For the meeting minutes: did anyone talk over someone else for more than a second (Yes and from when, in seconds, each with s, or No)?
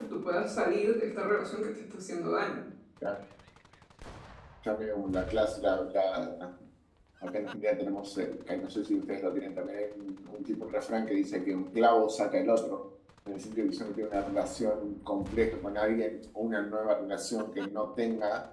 No